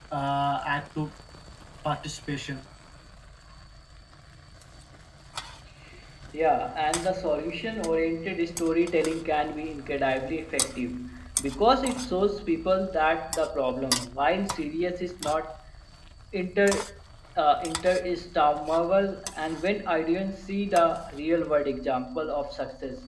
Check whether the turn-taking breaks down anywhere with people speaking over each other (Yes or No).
No